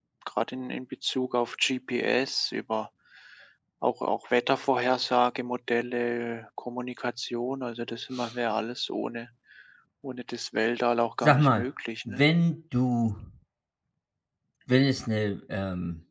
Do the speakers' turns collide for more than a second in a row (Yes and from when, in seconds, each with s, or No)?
No